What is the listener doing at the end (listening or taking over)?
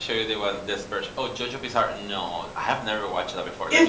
taking over